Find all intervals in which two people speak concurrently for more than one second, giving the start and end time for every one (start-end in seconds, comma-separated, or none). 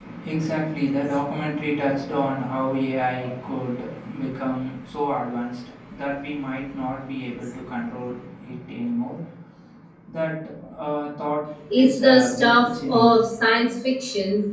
11.7-13.2